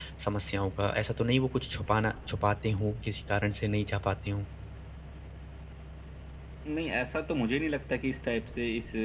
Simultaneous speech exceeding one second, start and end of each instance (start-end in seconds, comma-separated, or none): none